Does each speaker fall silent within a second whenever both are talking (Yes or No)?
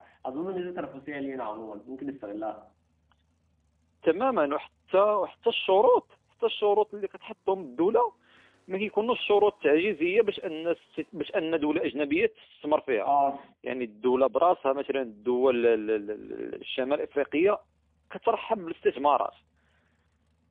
Yes